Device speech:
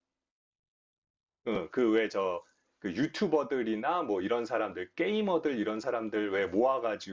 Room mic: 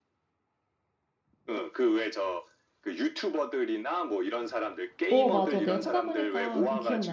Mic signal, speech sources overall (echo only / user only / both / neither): both